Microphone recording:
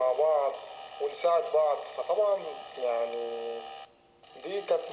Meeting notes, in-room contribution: none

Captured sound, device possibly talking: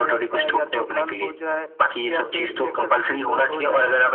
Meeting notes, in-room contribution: none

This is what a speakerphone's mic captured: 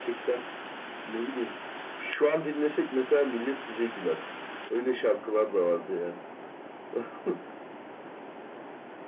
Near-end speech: none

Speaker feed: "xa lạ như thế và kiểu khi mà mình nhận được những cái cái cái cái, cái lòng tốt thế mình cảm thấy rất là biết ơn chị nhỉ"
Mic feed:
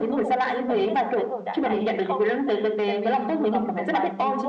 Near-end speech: present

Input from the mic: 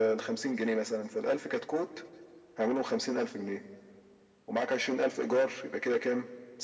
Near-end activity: none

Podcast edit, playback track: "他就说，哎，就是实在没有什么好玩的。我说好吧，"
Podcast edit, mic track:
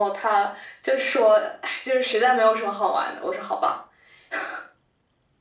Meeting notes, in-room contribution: none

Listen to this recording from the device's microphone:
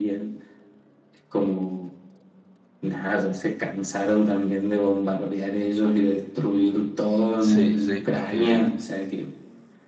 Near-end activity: present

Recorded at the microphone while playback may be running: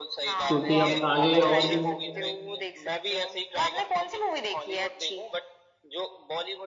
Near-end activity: present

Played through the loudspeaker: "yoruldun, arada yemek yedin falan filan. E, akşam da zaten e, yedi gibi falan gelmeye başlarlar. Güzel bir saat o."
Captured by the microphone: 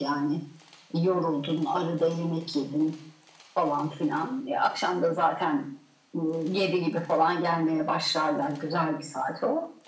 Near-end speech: none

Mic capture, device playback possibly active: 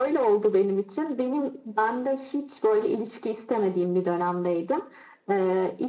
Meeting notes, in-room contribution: none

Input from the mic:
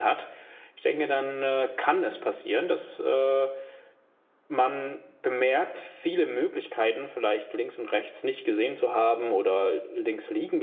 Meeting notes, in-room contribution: present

